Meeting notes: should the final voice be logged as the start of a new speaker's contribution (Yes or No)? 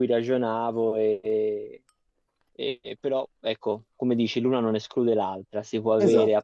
No